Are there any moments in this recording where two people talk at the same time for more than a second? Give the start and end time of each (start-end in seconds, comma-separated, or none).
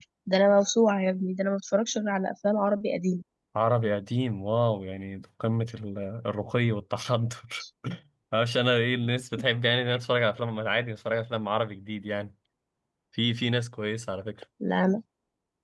none